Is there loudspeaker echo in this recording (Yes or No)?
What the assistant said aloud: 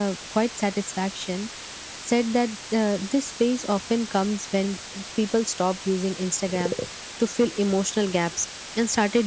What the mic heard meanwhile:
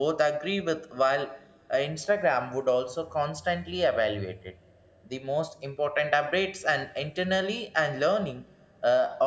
No